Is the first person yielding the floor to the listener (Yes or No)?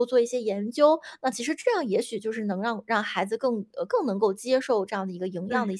Yes